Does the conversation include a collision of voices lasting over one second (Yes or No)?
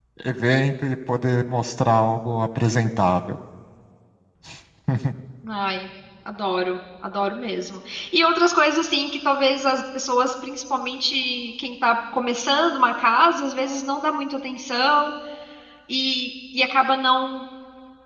No